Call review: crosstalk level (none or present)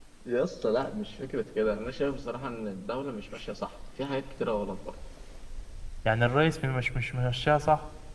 none